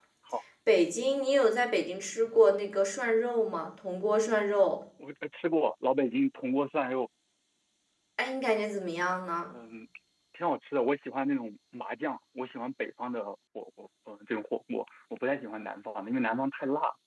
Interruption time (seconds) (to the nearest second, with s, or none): none